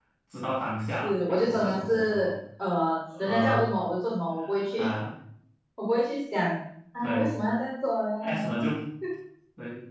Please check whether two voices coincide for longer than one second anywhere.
Yes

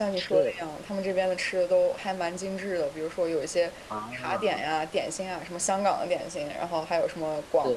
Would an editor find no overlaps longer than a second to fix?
Yes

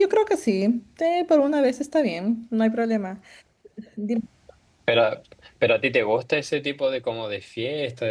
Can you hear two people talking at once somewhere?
No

